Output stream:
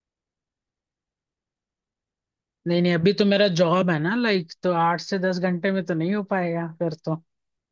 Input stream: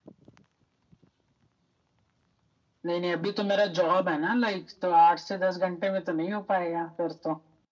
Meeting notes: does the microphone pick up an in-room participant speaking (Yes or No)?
No